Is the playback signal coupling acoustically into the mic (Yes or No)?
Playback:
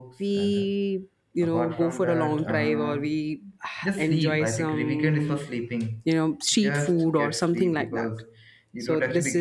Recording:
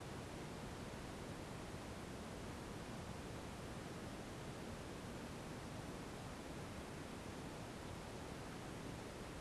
No